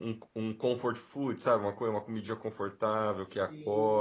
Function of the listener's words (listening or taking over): taking over